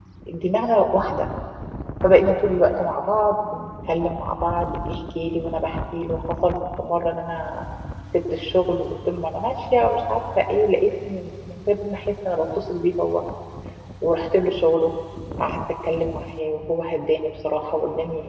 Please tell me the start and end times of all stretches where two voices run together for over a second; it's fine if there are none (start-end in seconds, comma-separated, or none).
none